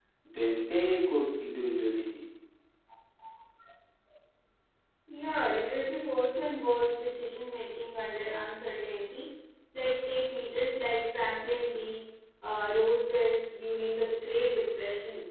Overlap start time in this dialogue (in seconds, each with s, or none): none